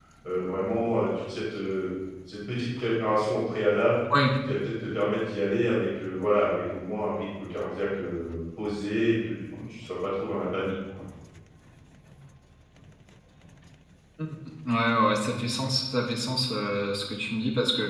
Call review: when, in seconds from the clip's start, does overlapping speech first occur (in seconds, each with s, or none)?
none